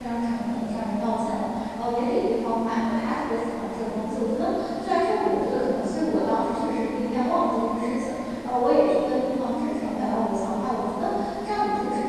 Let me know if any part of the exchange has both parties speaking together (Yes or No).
No